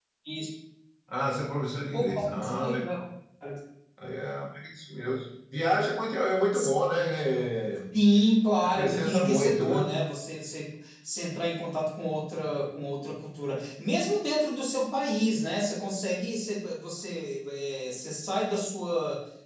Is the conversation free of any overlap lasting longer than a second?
No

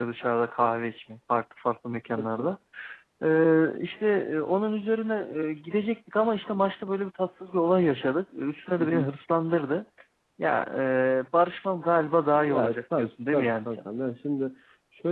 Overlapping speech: Yes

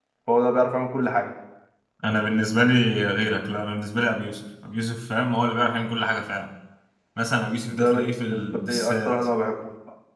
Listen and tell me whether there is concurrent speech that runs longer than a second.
Yes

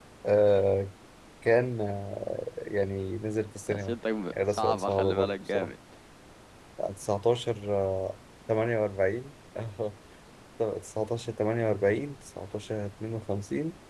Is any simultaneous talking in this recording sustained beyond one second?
Yes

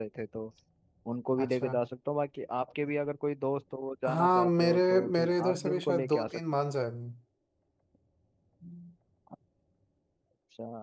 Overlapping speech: Yes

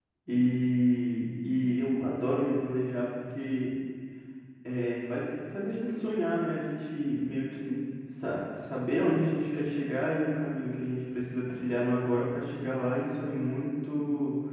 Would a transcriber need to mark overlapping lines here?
No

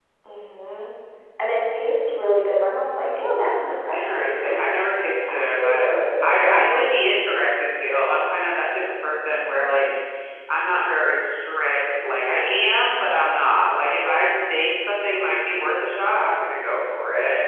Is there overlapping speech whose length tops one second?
Yes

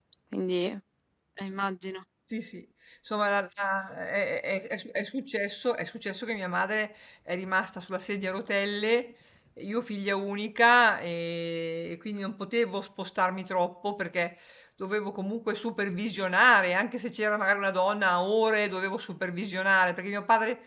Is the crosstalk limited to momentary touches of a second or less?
Yes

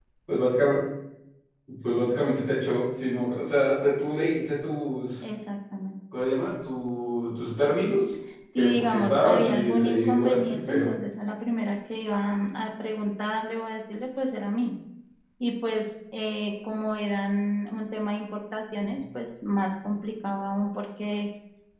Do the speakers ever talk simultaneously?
Yes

